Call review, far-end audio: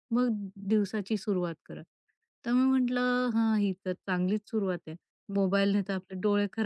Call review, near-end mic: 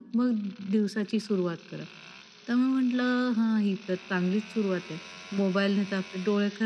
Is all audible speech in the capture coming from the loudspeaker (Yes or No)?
Yes